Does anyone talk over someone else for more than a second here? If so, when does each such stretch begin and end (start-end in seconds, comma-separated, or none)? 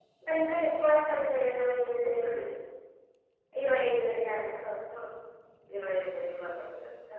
none